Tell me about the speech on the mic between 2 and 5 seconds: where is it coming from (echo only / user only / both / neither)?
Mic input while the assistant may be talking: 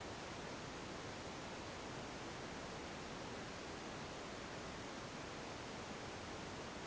neither